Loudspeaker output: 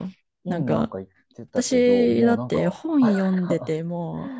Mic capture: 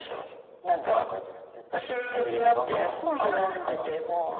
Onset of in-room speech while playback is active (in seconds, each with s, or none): none